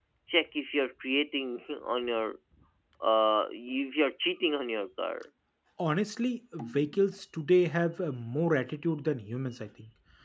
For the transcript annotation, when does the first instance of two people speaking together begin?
none

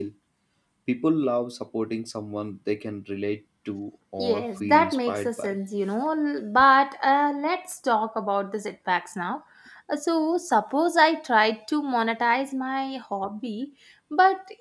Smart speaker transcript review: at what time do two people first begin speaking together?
4.2 s

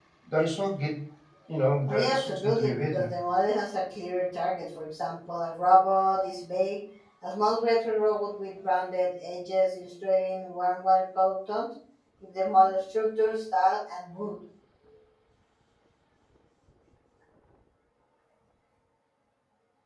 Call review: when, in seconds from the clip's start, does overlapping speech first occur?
1.9 s

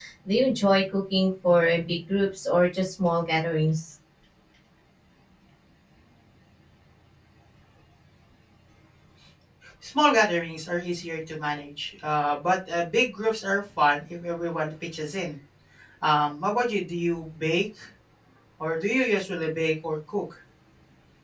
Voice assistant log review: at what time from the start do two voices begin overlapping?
none

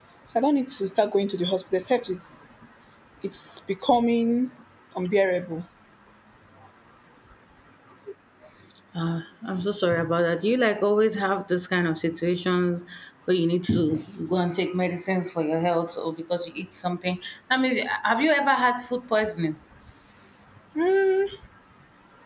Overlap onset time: none

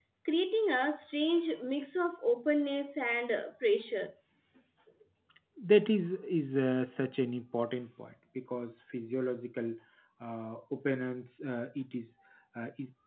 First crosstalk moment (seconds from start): none

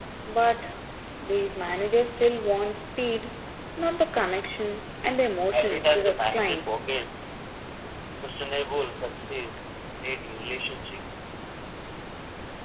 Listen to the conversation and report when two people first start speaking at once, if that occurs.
5.5 s

